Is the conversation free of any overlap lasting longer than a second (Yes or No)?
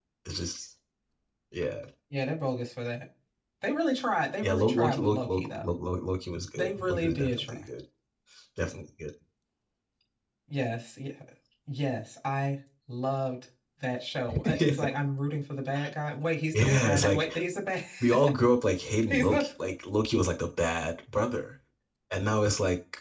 No